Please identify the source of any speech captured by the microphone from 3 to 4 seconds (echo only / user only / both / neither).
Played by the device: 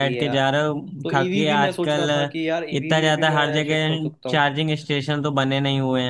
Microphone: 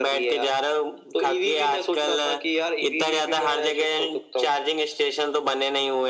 echo only